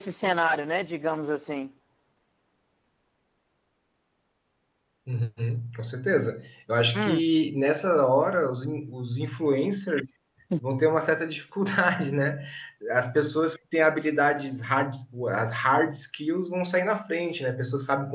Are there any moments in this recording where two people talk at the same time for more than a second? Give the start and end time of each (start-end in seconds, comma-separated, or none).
none